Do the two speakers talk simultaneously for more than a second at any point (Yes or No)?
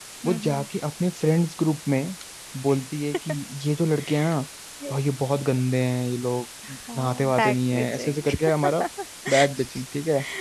Yes